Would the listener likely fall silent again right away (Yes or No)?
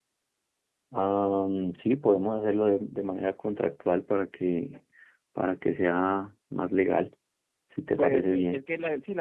No